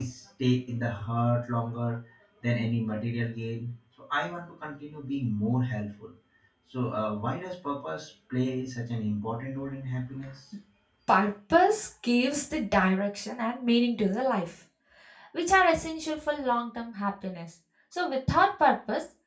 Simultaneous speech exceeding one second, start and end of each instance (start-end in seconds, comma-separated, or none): none